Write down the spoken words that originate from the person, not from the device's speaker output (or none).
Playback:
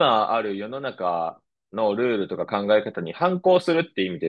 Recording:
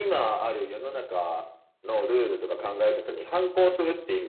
none